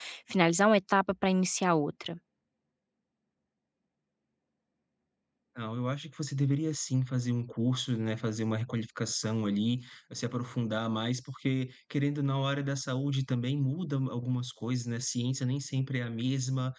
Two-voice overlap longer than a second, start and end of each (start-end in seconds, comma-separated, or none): none